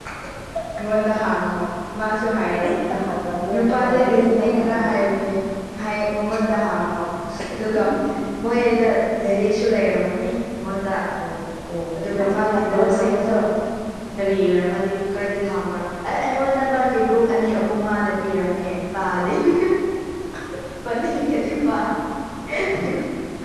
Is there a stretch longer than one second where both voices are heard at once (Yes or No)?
Yes